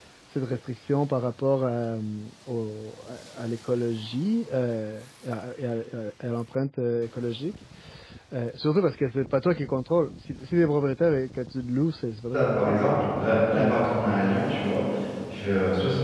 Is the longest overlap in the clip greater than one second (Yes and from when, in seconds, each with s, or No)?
No